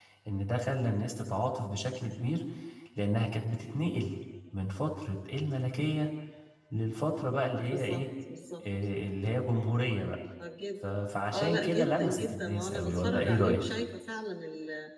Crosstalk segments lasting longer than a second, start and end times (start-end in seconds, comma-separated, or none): 11.3-13.6